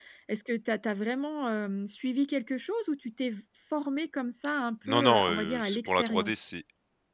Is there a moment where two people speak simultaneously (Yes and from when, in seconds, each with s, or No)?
Yes, from 4.9 s